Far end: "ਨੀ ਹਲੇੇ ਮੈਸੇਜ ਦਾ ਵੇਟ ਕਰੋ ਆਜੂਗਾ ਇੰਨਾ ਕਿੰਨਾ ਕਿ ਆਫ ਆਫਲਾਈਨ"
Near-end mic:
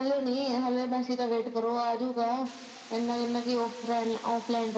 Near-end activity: none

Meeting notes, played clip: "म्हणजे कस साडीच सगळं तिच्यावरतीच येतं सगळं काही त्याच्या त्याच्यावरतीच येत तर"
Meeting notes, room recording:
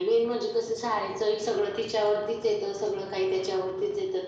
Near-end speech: none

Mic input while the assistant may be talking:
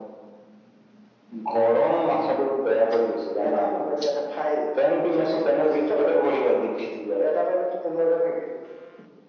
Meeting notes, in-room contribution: none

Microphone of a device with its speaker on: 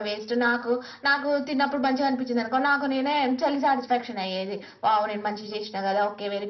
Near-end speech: none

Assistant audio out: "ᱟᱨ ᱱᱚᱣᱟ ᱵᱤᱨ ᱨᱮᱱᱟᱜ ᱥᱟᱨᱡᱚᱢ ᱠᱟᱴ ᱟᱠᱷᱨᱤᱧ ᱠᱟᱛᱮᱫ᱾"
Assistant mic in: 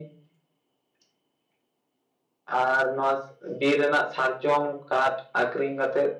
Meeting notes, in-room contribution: none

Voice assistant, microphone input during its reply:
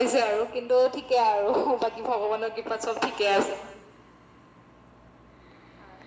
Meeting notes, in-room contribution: none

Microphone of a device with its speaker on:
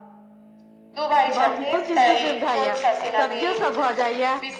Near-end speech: present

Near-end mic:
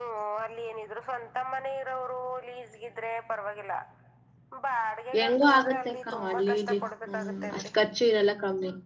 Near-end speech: present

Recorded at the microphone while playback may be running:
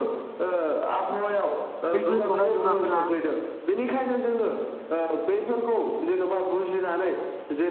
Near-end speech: present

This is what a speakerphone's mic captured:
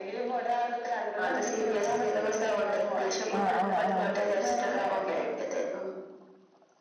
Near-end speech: present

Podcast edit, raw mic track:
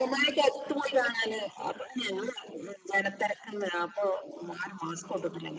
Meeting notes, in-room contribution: none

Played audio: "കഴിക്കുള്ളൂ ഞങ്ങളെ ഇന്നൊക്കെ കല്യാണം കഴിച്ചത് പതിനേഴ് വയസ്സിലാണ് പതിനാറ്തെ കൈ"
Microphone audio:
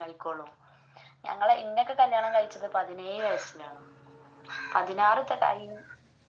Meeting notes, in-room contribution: none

